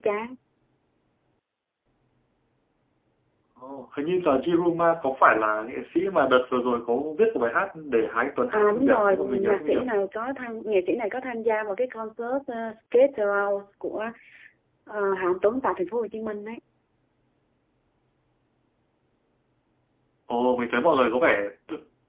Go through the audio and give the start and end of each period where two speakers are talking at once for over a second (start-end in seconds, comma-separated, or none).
8.5-9.8